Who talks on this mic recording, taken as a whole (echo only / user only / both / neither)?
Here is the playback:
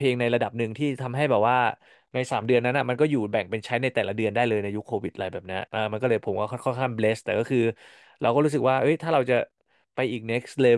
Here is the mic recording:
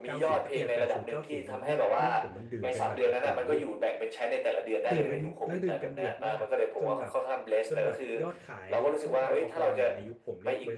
both